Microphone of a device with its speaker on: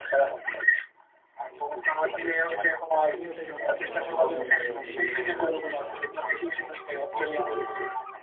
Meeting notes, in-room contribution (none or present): present